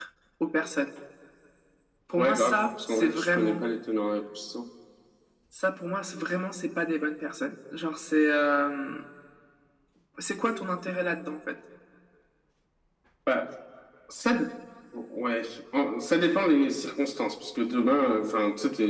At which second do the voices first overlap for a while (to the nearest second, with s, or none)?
2 s